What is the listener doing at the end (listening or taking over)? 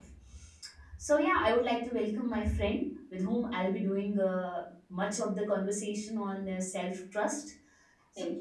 listening